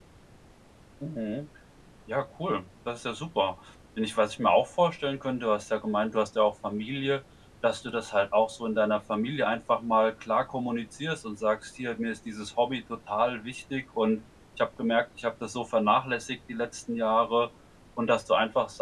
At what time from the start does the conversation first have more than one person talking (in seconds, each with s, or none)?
none